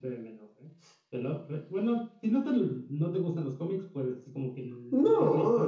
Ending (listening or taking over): taking over